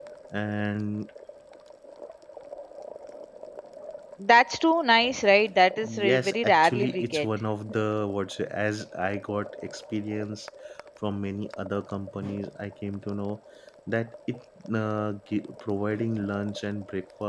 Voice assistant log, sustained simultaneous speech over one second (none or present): present